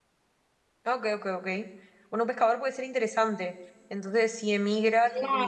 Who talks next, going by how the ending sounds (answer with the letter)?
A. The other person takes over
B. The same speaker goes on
B